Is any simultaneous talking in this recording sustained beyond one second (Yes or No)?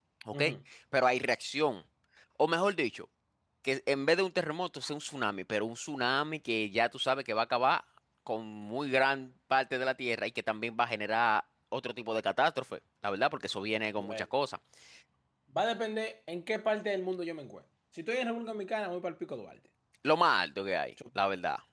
No